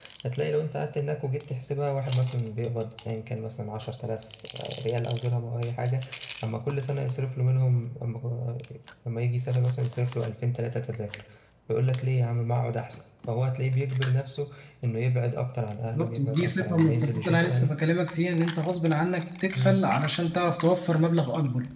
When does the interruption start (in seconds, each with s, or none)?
15.8 s